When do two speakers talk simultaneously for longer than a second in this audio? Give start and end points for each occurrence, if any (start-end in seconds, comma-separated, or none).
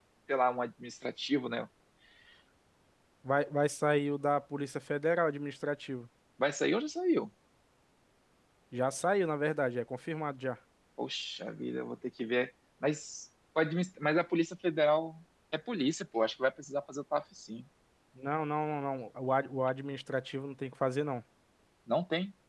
none